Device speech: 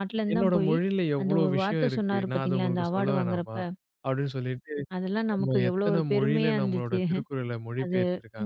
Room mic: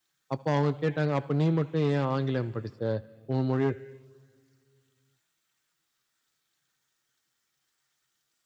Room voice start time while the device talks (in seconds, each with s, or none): 0.3 s